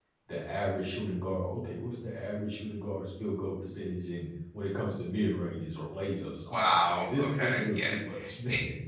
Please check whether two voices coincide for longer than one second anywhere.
Yes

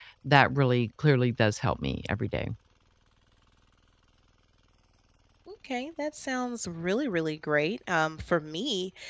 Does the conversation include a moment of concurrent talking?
No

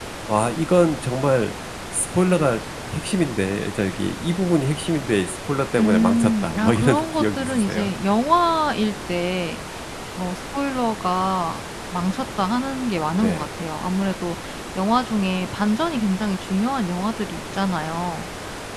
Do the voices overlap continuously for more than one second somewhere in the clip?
Yes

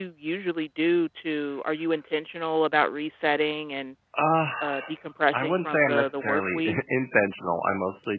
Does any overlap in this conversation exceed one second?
Yes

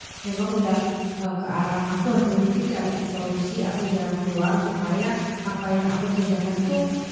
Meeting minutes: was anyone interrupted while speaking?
No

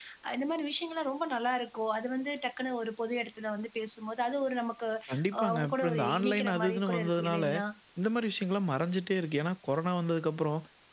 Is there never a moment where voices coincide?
No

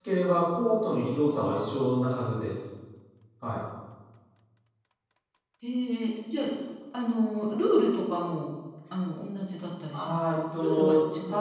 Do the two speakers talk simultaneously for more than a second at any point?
Yes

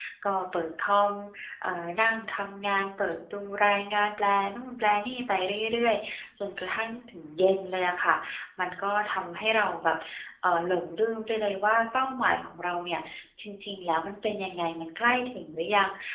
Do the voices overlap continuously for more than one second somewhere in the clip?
No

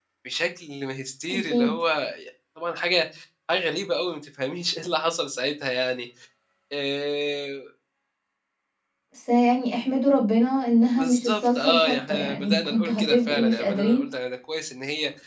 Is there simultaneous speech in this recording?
Yes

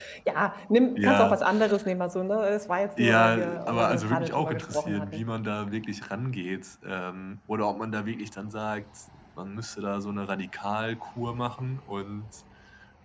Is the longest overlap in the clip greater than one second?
Yes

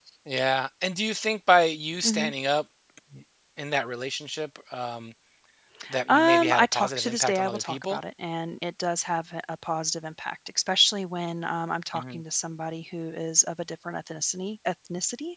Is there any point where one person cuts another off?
Yes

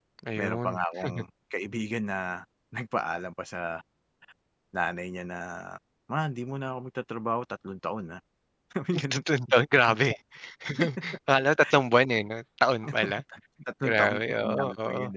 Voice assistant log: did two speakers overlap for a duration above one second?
Yes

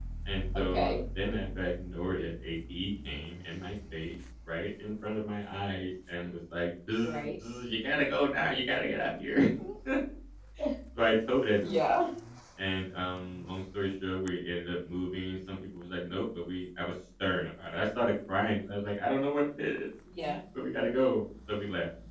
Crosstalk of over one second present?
No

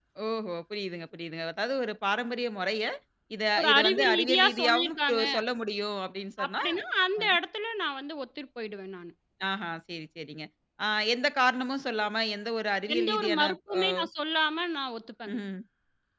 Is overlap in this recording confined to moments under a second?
No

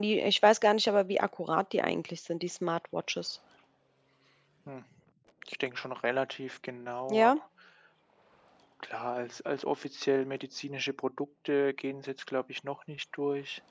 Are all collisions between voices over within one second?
Yes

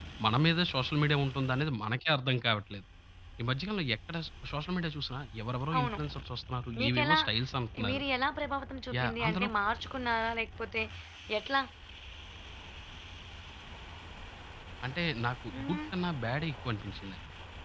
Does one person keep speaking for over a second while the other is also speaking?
No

